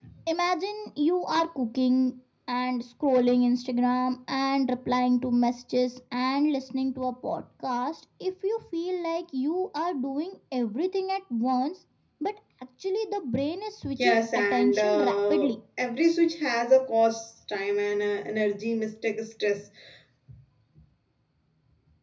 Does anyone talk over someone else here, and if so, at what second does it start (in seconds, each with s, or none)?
14.0 s